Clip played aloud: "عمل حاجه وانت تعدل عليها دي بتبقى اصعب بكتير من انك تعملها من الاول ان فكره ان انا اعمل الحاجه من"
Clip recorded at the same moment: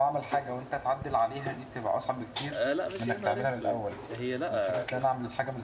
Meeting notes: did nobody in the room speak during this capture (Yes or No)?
No